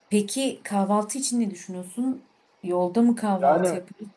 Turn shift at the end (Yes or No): Yes